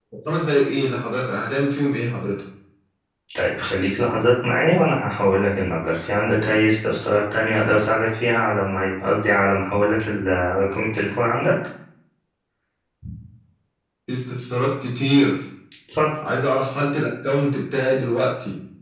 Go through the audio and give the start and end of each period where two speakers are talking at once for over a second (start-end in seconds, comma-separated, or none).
none